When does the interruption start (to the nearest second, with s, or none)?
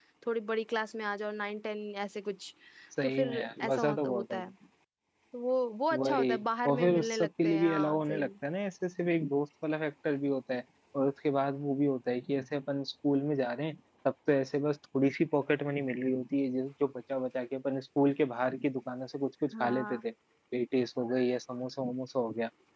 3 s